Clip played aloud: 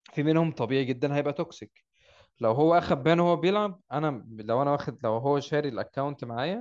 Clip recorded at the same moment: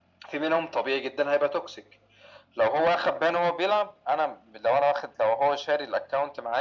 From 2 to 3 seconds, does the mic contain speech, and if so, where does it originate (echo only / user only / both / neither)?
echo only